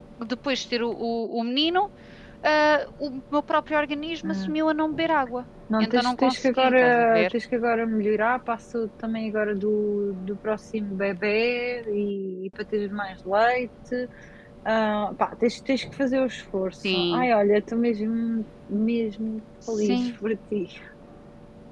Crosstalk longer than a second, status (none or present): present